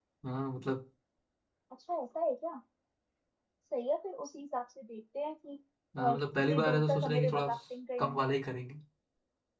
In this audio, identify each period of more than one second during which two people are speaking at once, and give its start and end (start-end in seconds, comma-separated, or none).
6.0-7.5